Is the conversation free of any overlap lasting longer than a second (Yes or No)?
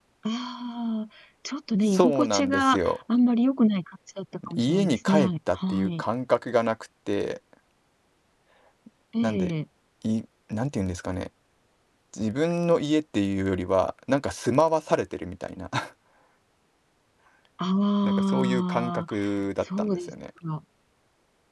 No